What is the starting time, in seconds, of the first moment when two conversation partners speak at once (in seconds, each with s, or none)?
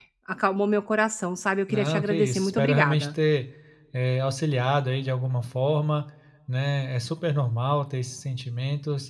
1.7 s